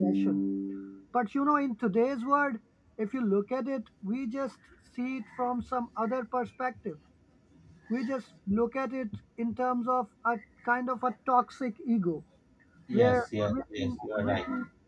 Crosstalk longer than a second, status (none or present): present